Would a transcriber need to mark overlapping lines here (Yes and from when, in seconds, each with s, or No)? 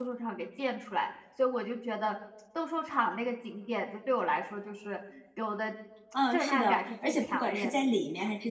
Yes, from 6.3 s